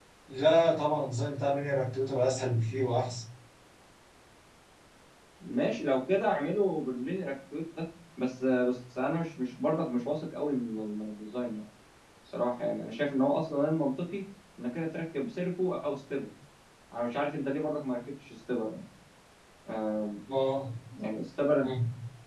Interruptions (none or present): none